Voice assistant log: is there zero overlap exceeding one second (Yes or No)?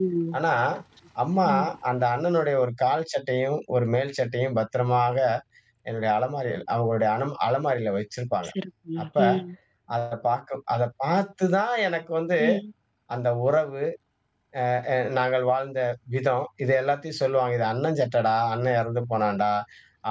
Yes